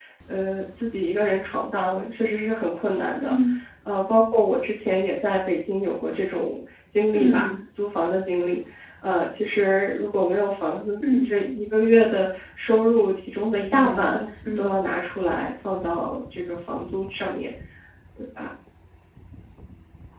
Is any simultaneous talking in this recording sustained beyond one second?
No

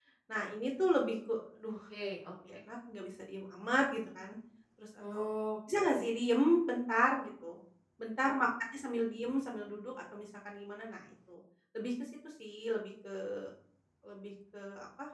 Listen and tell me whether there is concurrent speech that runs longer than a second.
No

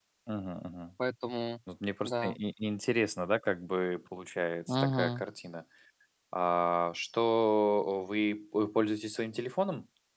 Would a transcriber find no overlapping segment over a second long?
Yes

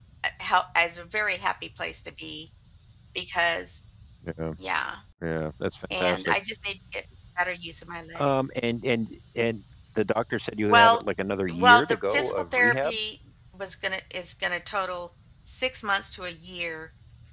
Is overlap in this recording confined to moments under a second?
No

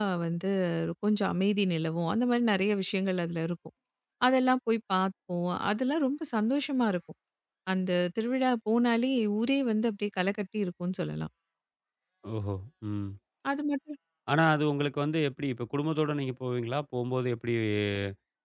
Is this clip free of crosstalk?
Yes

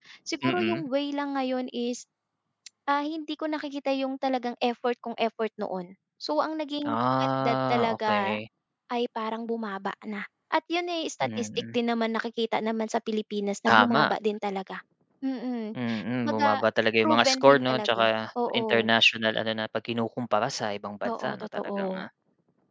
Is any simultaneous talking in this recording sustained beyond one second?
Yes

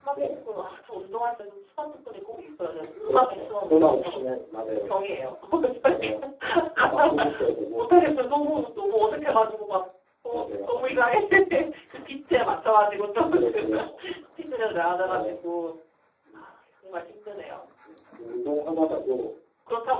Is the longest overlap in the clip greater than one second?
Yes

